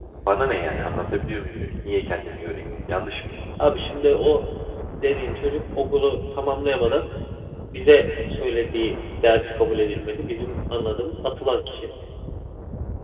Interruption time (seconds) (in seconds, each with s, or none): none